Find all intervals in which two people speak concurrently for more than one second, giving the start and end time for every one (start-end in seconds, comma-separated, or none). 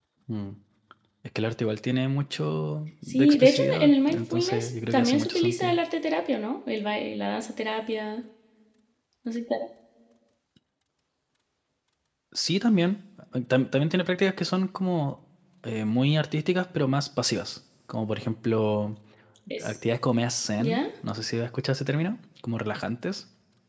3.1-5.8